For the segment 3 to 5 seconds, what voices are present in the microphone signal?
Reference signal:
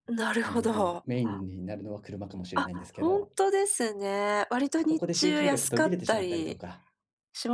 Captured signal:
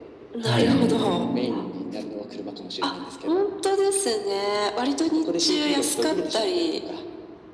echo only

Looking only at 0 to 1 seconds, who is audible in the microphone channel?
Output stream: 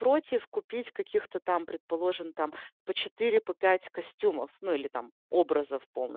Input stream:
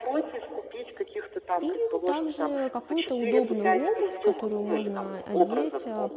echo only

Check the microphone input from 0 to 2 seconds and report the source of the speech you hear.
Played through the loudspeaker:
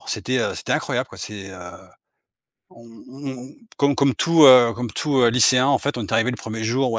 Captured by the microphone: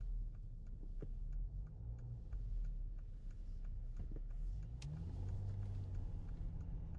neither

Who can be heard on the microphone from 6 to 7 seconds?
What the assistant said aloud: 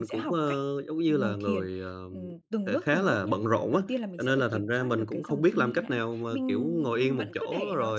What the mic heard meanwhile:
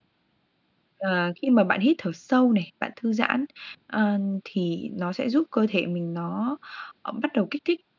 user only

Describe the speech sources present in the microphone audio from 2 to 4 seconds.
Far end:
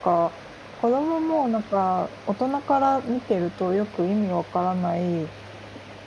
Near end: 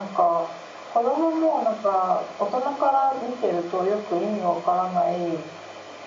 echo only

